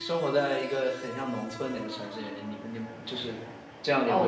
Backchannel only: No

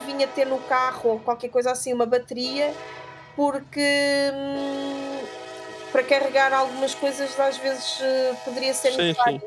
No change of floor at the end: No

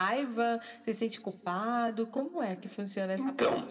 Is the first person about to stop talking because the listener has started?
Yes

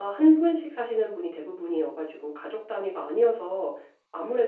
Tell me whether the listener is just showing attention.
Yes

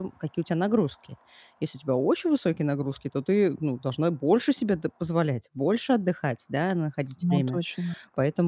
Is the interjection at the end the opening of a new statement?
No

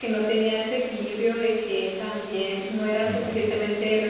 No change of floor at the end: Yes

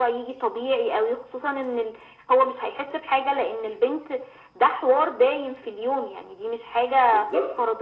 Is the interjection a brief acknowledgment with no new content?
No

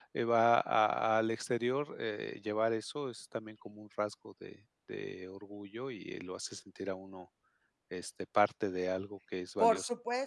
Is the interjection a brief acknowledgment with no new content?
No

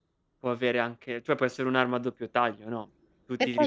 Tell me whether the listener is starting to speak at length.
No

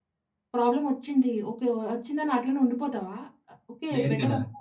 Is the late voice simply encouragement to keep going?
Yes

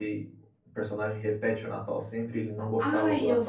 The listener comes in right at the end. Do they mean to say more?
Yes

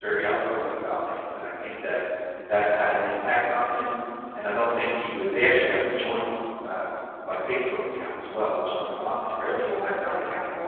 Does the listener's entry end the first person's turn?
No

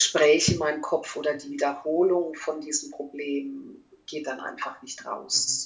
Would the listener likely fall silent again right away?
No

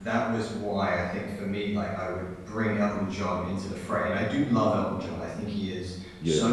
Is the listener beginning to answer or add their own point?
No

